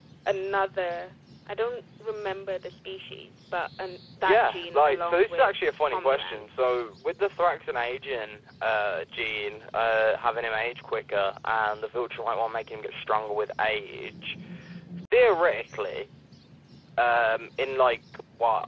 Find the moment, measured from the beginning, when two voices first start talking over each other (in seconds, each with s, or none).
4.2 s